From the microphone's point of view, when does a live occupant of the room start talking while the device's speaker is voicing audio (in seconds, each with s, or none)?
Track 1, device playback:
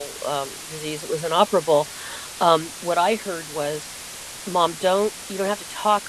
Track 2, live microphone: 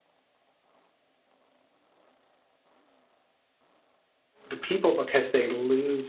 4.5 s